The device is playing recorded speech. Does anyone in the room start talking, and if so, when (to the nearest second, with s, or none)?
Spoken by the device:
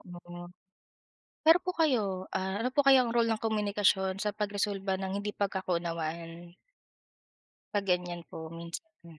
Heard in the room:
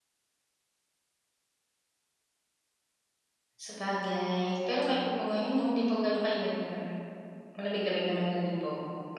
4 s